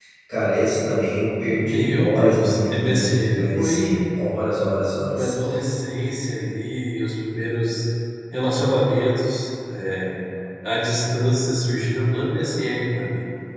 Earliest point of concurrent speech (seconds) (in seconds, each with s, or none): 1.5 s